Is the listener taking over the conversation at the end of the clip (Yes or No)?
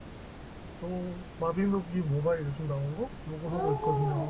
Yes